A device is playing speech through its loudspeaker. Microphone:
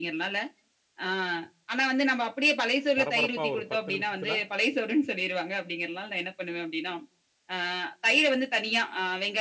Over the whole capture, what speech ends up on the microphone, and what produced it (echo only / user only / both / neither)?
both